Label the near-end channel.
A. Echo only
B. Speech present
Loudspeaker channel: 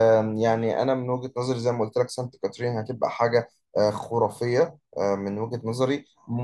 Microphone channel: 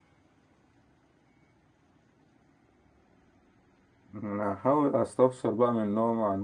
B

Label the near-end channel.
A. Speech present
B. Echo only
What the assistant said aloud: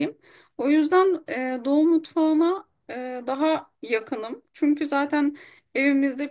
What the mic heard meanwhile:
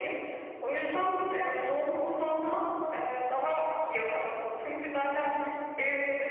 B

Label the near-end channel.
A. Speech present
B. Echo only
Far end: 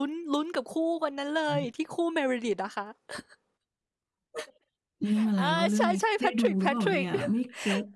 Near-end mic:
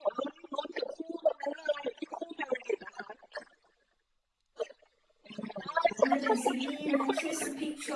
A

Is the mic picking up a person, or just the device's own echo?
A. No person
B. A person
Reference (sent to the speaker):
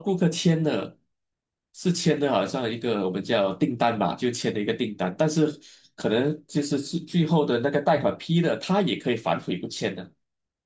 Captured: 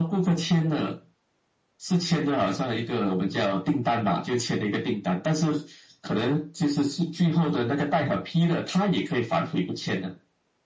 A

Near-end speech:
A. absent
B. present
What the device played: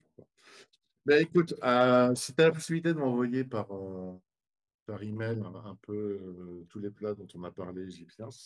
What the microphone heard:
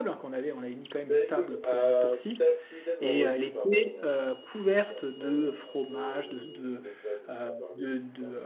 B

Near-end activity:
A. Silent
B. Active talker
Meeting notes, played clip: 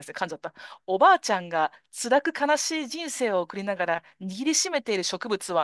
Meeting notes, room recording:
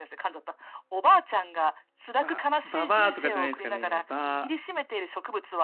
B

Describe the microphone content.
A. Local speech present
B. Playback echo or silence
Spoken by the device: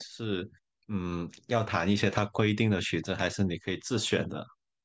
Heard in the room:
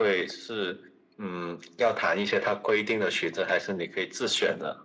B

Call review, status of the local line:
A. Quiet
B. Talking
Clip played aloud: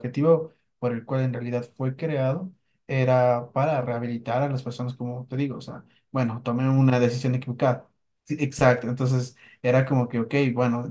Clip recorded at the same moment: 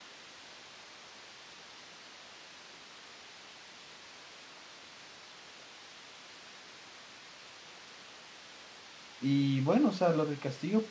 B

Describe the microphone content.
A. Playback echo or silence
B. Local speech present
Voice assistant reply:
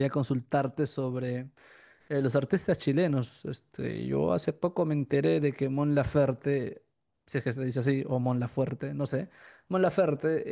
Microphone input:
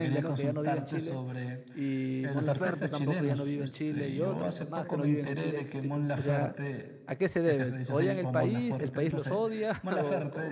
B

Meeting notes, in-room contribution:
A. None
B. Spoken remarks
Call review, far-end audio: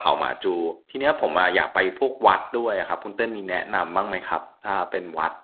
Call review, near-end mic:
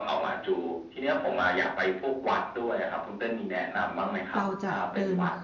B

